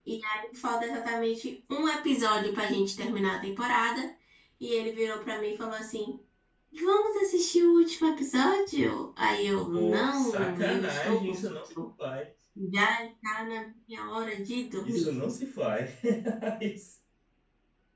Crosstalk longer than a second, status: present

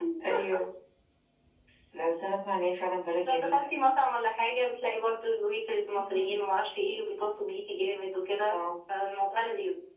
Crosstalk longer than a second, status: none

